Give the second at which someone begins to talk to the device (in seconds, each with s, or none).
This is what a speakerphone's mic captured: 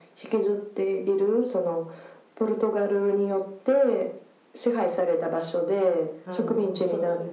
6.2 s